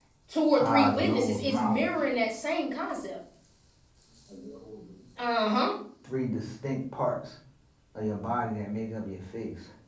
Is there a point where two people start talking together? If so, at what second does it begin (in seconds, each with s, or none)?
0.6 s